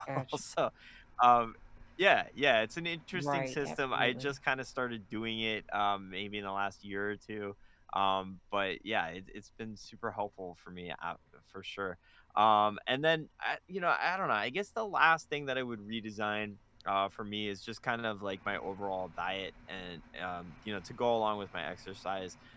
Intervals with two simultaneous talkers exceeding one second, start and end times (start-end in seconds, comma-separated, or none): 3.1-4.4